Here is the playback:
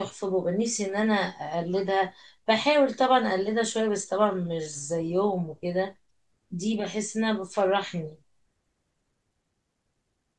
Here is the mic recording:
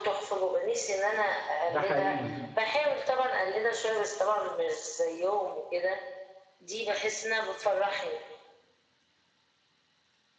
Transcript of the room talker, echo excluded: ده حقيقي

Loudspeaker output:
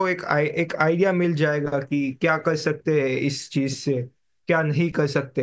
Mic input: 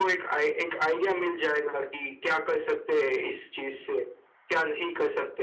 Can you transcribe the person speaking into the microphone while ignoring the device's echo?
none

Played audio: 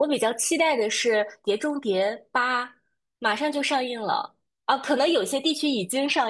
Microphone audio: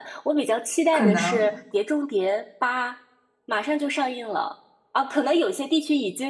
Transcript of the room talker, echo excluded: 可能

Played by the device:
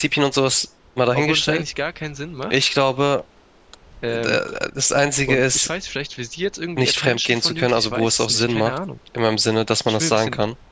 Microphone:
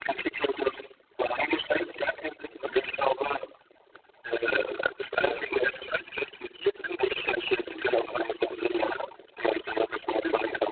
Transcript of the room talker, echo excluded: Ja.

